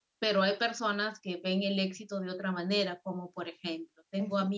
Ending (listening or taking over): listening